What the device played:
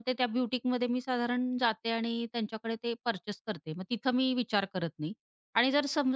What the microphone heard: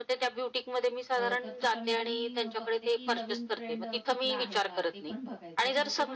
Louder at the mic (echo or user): echo